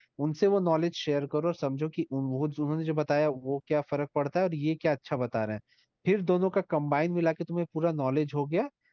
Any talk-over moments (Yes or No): No